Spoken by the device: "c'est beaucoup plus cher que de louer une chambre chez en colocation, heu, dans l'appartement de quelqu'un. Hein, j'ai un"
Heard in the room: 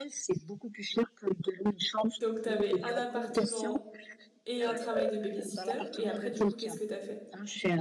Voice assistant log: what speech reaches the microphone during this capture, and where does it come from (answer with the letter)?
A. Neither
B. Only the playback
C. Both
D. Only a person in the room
C